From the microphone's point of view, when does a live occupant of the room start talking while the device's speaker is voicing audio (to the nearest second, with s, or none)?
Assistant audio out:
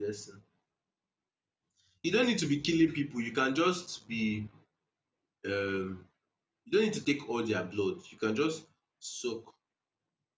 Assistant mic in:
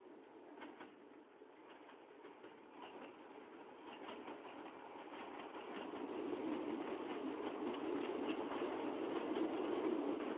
none